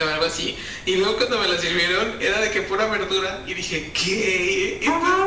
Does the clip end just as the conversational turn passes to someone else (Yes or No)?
Yes